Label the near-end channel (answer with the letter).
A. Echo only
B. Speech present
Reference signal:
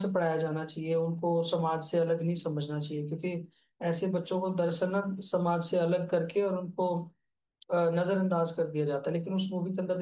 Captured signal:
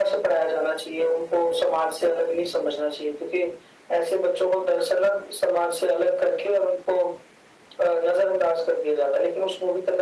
A